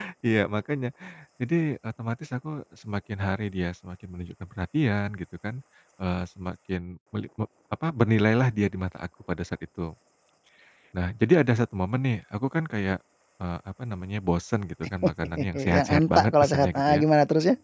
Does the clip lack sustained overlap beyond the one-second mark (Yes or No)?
No